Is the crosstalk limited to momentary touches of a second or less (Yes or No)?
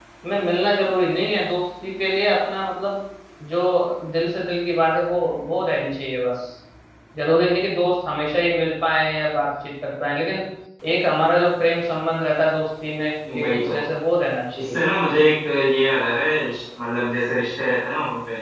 Yes